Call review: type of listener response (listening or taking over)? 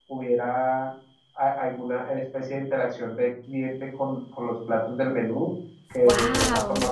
listening